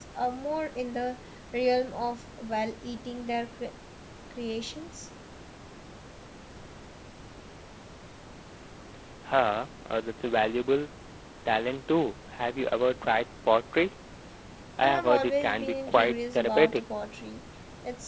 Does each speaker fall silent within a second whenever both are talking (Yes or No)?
No